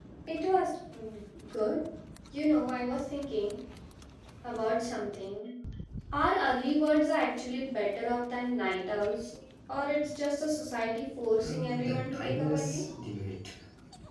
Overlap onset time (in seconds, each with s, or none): 11.4 s